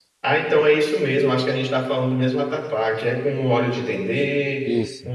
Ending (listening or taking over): listening